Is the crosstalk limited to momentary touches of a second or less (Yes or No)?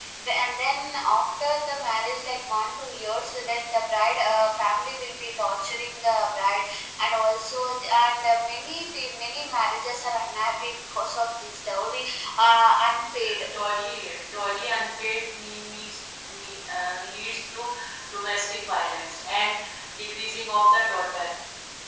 Yes